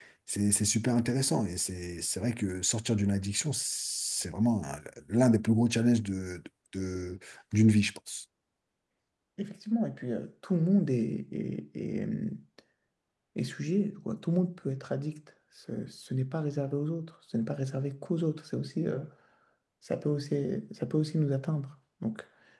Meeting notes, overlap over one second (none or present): none